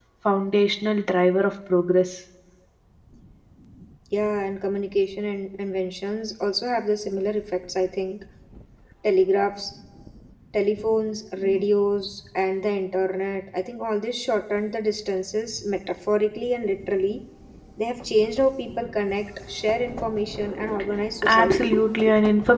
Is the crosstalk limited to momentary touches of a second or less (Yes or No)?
Yes